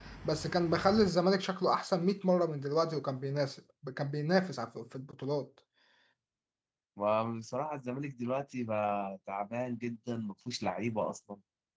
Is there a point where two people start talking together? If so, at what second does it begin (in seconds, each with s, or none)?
none